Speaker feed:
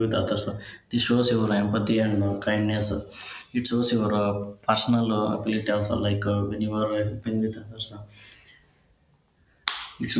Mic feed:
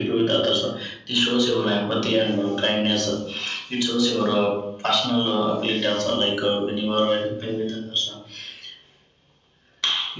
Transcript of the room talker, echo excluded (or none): none